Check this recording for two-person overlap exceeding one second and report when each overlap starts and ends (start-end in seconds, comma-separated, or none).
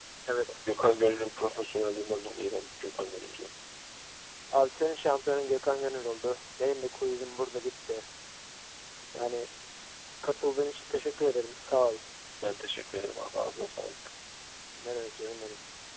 none